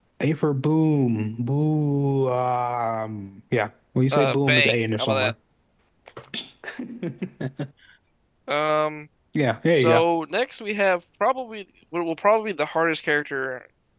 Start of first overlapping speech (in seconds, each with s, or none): 4.1 s